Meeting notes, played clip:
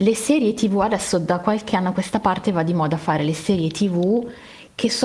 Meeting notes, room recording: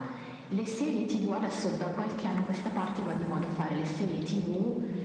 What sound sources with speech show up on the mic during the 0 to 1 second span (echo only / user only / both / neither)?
echo only